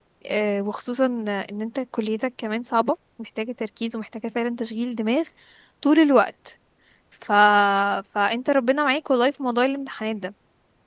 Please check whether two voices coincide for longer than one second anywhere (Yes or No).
No